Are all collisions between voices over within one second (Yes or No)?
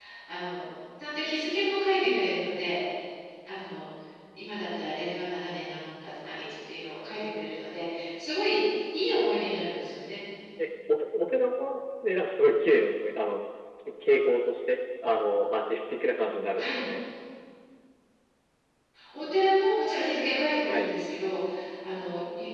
Yes